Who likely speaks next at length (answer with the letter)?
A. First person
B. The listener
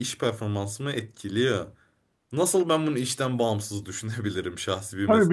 B